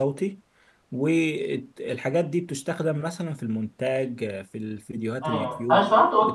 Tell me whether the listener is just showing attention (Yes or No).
No